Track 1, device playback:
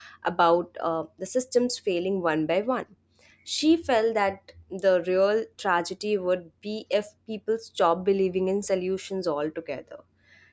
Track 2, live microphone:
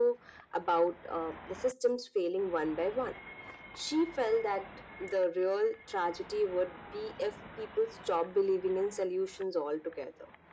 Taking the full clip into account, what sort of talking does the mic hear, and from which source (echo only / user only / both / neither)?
echo only